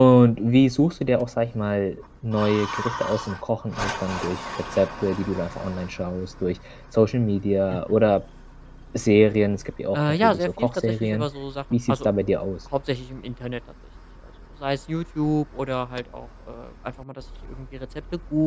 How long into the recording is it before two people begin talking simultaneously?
9.9 s

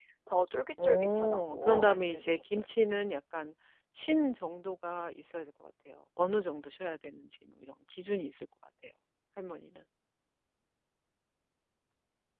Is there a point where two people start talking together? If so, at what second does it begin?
0.8 s

